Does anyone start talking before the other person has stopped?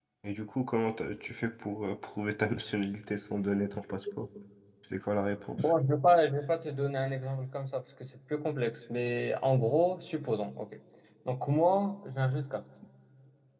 No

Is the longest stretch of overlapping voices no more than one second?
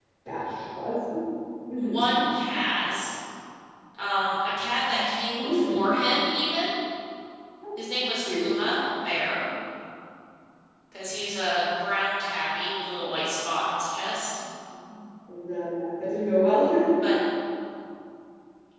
Yes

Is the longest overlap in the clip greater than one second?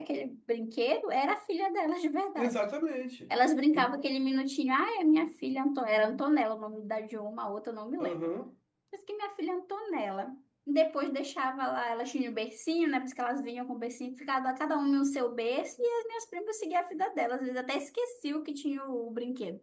No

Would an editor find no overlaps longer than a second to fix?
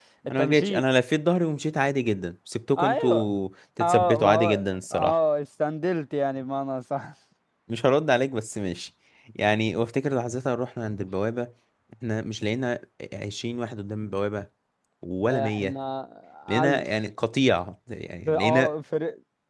No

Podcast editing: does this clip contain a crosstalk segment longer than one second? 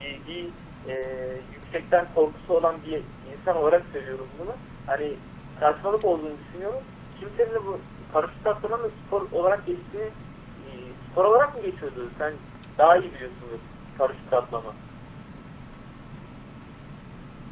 No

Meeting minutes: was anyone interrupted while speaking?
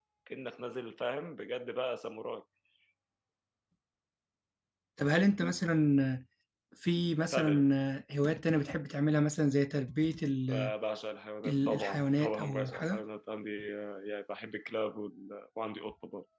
Yes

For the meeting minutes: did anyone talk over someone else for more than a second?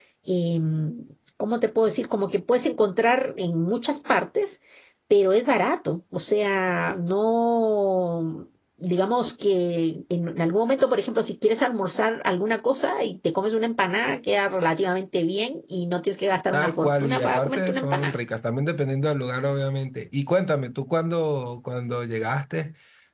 Yes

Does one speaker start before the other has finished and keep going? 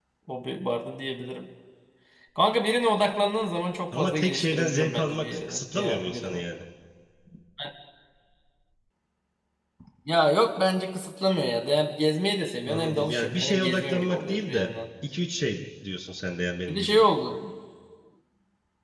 Yes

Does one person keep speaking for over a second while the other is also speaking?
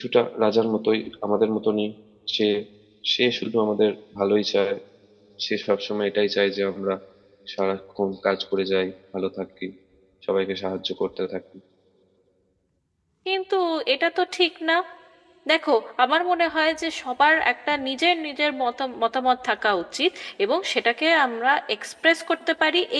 No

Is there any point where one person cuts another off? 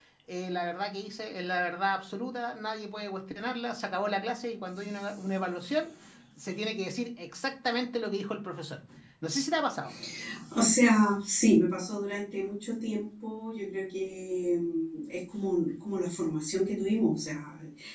No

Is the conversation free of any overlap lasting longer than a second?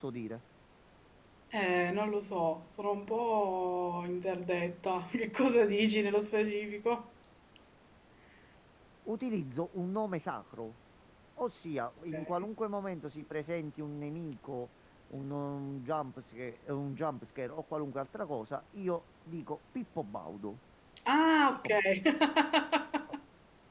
Yes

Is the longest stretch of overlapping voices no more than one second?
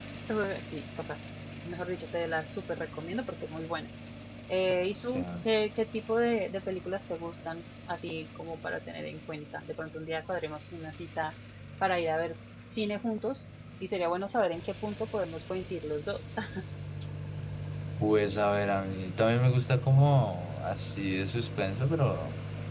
Yes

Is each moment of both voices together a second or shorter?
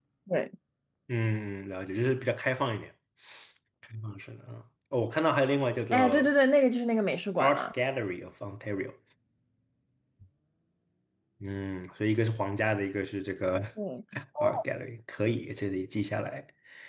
Yes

